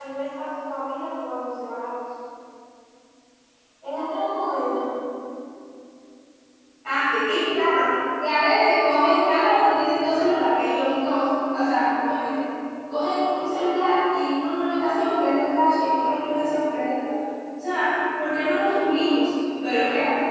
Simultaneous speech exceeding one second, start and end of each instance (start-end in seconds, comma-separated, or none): none